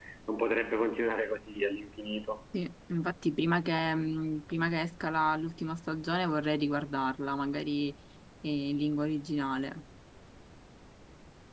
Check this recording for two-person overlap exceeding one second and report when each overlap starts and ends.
none

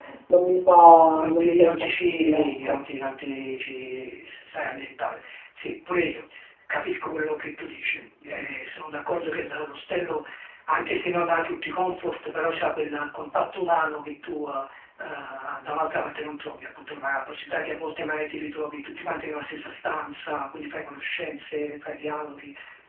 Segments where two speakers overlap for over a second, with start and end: 1.1-2.8

